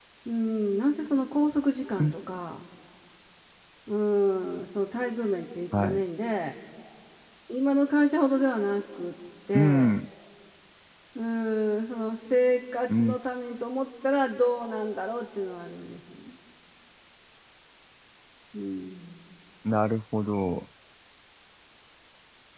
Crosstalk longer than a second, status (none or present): none